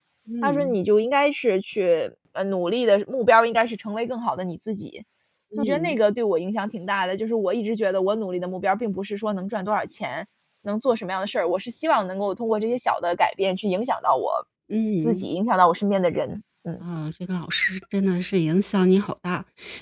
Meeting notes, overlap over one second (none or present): none